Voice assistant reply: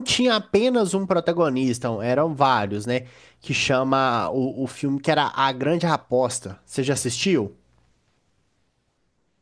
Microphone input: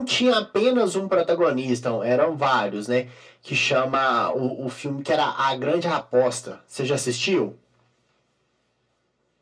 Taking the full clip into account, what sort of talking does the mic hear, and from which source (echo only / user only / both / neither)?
echo only